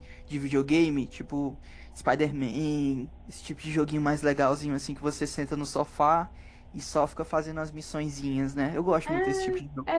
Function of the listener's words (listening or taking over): taking over